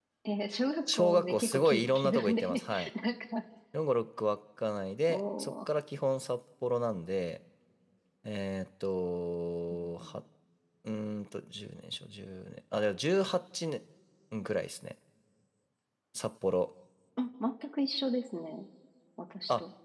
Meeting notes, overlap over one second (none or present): present